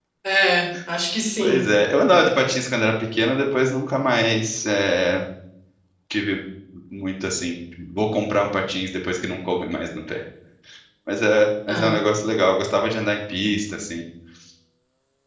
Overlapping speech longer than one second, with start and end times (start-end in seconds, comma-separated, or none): none